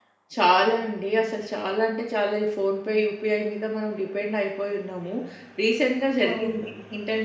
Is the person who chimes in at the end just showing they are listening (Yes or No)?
Yes